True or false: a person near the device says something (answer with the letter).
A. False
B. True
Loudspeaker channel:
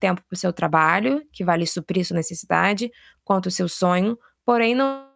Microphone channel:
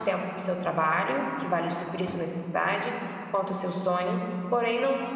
A